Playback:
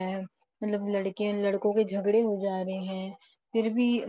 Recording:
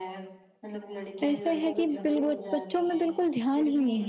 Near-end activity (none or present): present